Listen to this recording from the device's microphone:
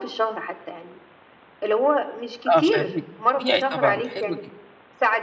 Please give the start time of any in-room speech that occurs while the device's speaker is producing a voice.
2 s

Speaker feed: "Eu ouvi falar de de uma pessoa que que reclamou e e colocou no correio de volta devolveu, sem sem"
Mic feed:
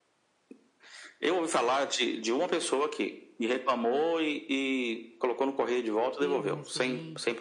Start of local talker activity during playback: 6 s

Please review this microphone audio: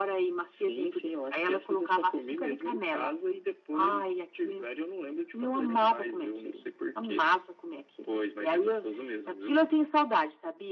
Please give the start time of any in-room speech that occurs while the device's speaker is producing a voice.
none

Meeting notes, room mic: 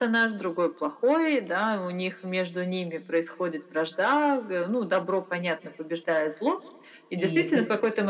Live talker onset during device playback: 7 s

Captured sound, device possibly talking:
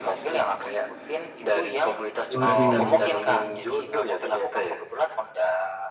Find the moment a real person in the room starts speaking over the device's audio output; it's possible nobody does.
2 s

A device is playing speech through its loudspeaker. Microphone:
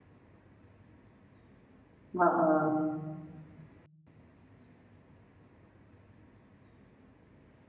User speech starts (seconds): 2 s

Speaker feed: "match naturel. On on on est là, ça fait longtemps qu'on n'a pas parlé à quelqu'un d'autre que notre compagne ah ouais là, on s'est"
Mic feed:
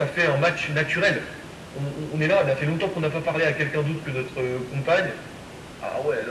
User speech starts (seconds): none

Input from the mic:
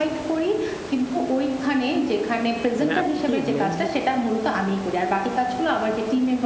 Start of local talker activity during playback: 3 s

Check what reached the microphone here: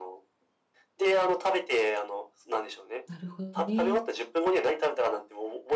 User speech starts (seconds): 3 s

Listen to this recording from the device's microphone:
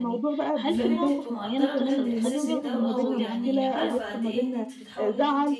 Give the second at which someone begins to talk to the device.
1 s

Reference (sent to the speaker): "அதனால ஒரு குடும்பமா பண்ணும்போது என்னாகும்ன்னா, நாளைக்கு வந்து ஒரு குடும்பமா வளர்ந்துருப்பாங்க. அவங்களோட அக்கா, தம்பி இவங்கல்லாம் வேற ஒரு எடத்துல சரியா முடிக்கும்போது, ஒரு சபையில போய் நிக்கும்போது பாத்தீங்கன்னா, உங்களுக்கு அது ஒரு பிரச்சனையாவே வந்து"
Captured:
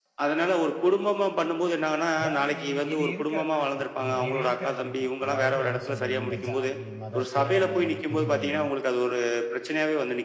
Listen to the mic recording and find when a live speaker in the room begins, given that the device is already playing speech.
2 s

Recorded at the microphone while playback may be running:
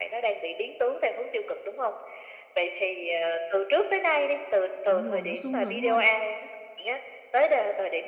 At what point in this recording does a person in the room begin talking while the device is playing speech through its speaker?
5 s

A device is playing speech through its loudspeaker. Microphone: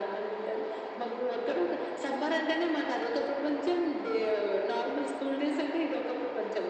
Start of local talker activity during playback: none

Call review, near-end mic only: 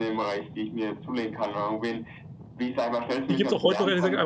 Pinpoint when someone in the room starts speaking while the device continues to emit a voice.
3 s

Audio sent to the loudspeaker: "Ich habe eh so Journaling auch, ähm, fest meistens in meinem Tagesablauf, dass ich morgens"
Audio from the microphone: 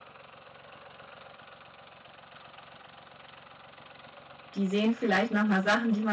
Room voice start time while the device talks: 5 s

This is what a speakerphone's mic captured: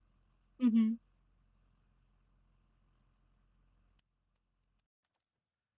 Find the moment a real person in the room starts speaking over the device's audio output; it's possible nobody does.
1 s

